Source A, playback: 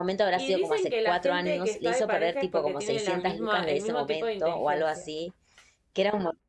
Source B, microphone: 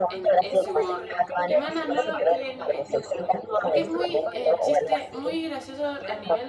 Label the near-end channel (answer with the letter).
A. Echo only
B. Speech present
B